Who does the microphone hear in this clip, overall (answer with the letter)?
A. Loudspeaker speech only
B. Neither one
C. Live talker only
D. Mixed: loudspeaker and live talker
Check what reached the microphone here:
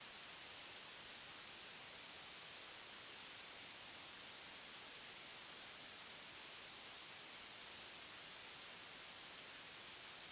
B